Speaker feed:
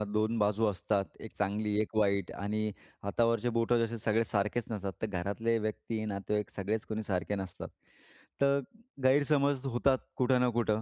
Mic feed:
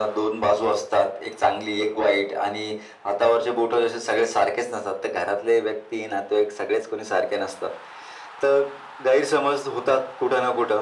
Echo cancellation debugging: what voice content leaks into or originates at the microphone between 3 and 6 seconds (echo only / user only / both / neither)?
echo only